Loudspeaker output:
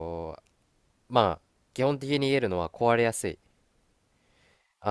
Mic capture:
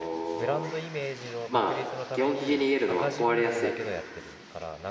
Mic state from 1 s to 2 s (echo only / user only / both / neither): both